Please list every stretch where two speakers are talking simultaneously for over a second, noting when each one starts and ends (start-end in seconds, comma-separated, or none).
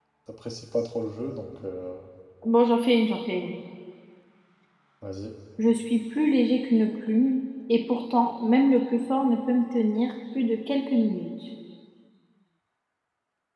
none